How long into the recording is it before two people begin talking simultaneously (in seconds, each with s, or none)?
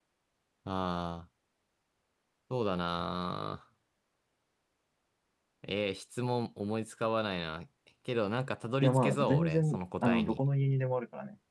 8.8 s